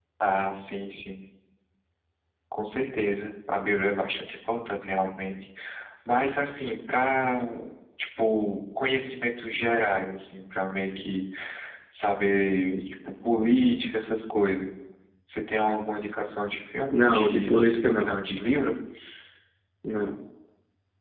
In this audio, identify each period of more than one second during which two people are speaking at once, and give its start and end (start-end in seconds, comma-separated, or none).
16.9-18.2